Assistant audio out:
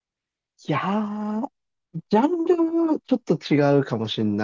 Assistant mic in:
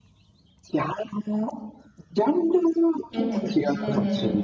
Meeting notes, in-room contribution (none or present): present